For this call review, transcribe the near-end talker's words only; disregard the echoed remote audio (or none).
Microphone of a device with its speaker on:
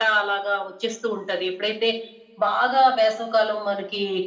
none